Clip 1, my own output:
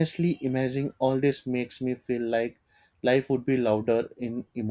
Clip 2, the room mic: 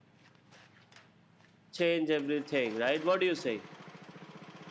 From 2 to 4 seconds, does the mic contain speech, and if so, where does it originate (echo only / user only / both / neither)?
user only